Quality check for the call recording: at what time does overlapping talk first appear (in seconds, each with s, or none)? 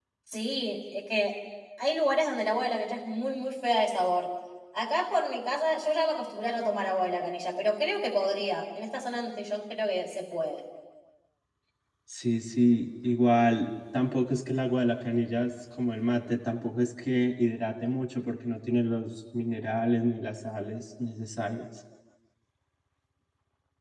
none